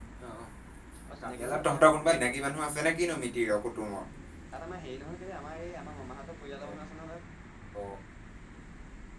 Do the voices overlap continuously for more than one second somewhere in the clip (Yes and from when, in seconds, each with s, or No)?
Yes, from 1.2 s